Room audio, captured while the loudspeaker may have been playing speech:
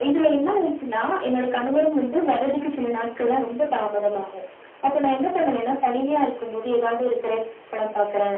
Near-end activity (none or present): none